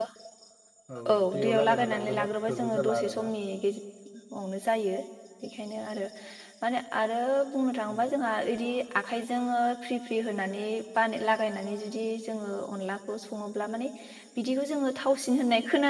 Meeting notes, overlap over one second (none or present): present